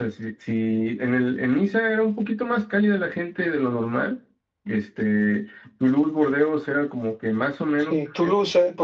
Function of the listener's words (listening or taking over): taking over